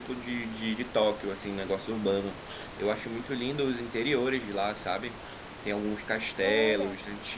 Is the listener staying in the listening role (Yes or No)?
Yes